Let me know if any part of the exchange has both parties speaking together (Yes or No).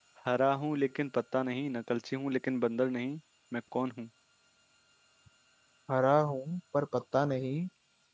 No